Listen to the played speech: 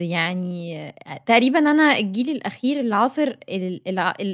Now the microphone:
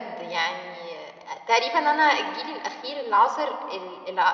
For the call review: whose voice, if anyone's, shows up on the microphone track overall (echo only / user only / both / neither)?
echo only